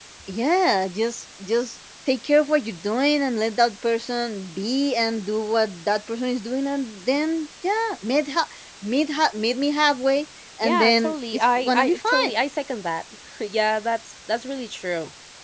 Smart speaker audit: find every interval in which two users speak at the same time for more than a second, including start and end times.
10.6-12.3

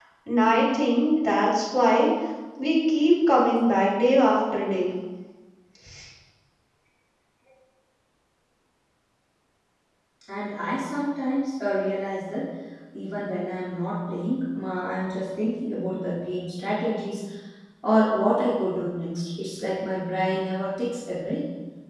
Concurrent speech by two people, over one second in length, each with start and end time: none

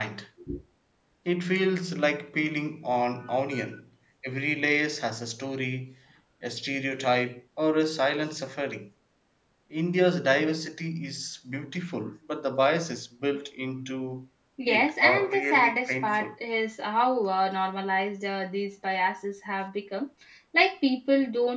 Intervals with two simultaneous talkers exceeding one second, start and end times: 14.7-16.3

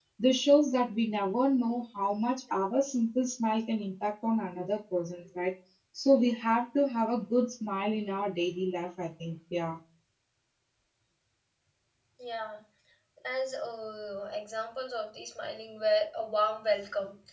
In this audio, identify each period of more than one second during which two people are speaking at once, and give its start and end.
none

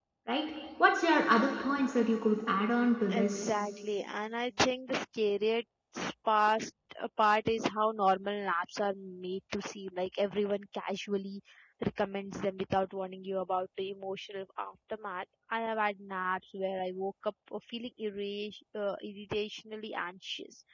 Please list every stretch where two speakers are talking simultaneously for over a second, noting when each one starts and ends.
none

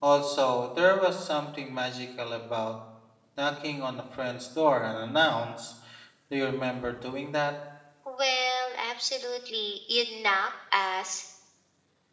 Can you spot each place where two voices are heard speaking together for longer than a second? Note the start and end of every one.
none

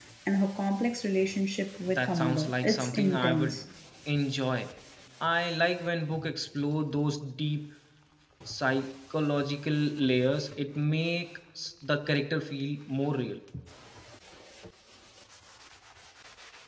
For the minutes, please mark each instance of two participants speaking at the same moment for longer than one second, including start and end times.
2.0-3.6

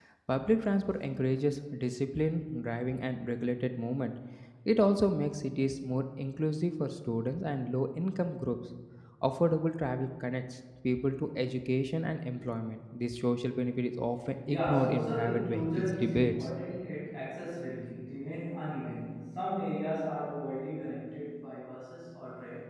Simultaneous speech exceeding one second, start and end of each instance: 14.5-16.3

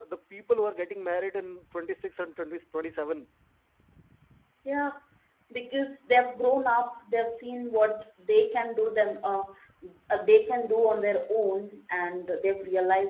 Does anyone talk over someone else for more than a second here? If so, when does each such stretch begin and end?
none

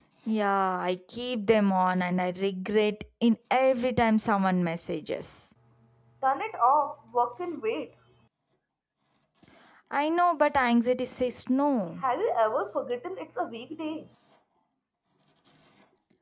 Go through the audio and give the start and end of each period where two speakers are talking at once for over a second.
none

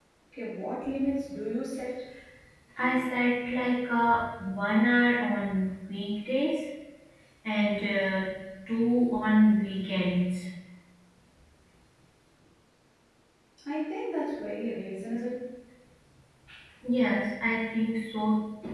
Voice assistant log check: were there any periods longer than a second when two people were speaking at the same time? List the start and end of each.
none

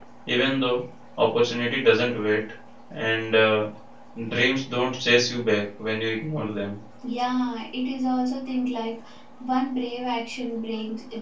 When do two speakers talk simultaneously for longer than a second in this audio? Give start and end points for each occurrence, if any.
none

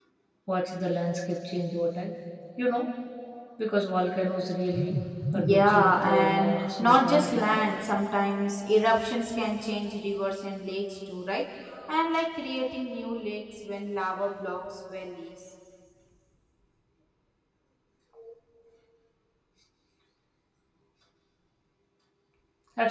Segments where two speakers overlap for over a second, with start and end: 5.3-7.6

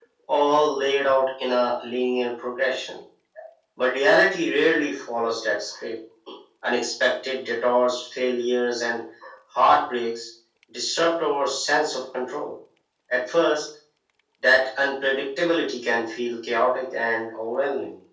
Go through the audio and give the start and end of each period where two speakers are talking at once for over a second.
none

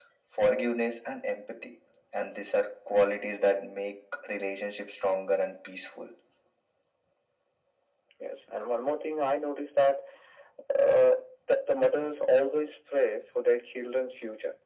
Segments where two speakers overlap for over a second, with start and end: none

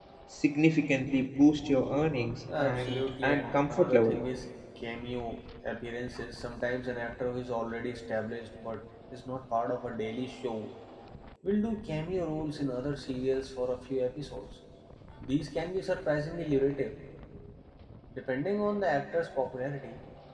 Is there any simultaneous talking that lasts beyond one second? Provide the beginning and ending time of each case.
2.6-4.2

